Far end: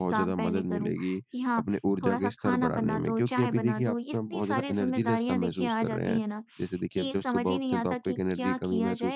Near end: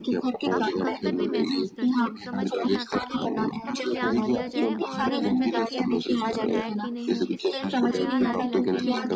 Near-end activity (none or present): present